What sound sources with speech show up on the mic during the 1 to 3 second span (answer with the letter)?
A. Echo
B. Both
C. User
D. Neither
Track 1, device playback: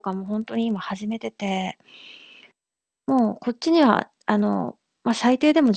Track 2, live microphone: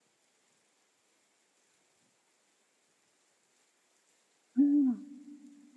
D